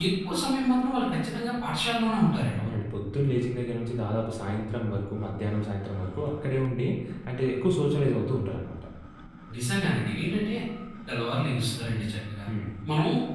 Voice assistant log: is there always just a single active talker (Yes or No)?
Yes